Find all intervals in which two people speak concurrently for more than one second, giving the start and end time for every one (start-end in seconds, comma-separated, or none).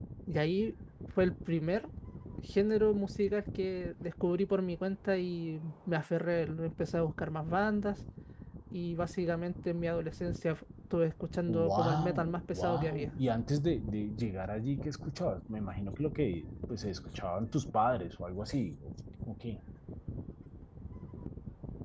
11.5-13.1